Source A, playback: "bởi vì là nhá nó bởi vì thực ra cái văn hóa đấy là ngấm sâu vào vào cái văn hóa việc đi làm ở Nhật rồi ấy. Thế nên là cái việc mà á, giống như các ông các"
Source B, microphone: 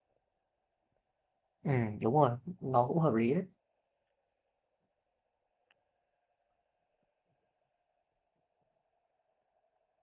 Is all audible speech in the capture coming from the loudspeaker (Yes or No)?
No